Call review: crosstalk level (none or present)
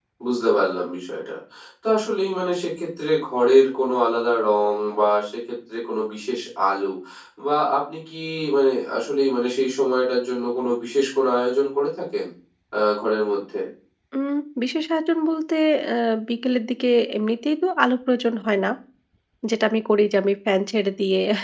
none